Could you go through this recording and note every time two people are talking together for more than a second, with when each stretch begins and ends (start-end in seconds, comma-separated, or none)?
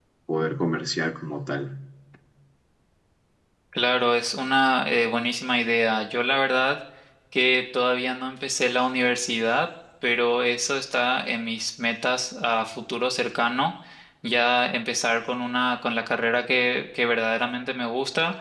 none